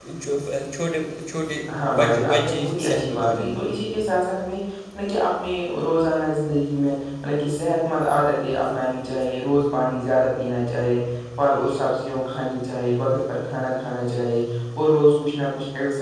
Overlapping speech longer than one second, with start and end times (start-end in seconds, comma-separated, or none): 1.9-3.7